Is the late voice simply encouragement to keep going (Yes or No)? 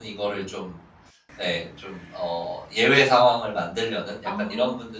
Yes